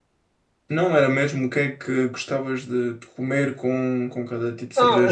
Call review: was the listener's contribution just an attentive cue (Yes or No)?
No